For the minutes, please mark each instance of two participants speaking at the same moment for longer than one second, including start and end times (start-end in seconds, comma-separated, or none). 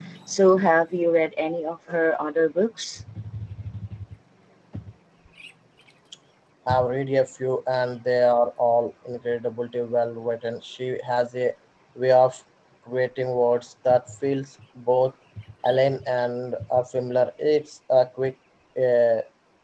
none